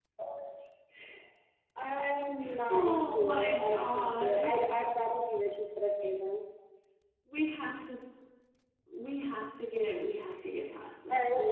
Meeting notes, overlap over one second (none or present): present